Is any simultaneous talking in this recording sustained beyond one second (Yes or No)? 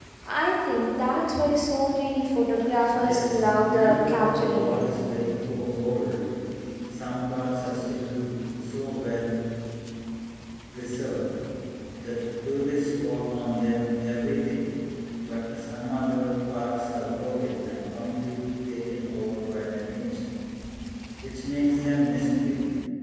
Yes